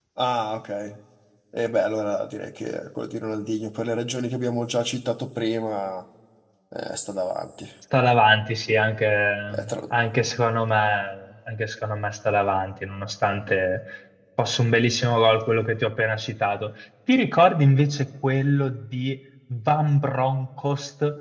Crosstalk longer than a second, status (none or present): none